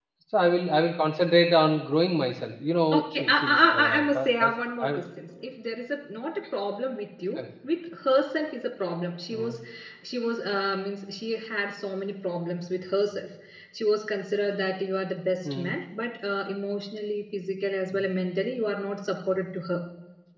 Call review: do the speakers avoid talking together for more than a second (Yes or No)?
No